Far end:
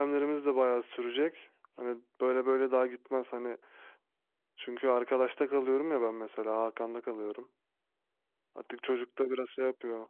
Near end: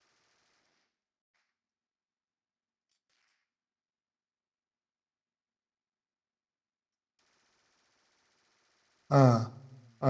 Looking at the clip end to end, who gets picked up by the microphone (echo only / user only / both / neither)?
user only